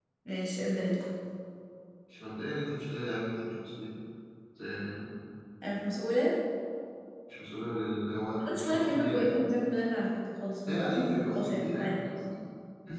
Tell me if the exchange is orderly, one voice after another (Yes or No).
No